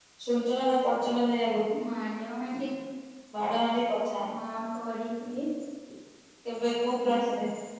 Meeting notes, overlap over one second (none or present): none